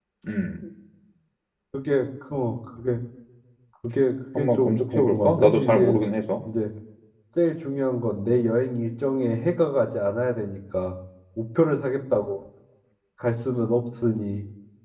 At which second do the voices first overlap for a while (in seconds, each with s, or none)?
4.4 s